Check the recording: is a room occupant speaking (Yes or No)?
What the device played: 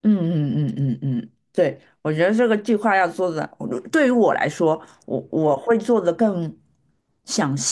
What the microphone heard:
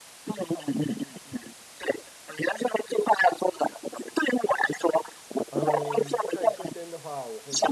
Yes